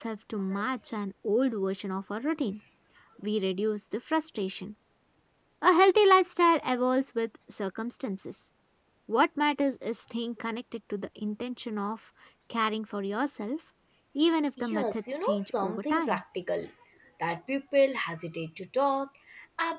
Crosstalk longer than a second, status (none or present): present